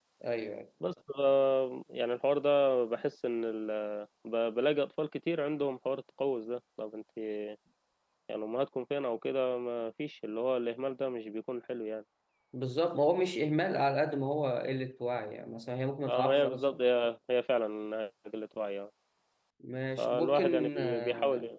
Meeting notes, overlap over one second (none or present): present